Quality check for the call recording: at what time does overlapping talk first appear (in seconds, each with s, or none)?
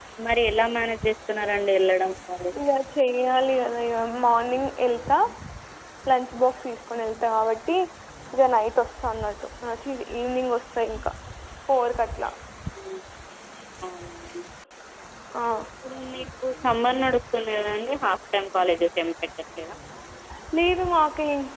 none